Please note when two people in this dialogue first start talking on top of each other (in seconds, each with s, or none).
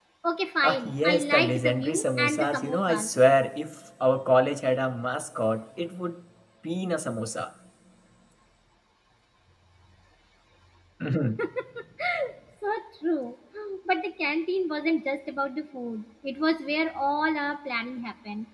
0.6 s